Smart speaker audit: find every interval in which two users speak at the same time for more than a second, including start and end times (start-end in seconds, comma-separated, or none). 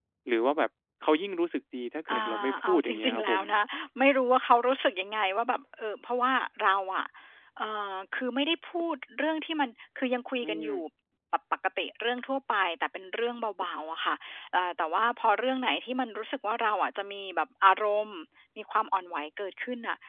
2.1-3.4